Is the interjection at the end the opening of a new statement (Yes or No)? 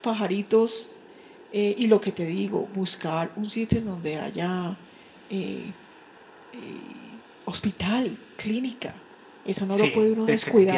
Yes